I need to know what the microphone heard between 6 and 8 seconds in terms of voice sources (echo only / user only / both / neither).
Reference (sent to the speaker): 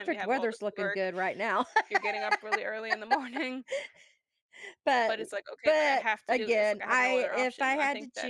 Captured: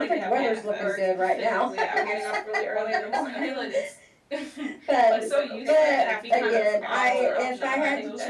both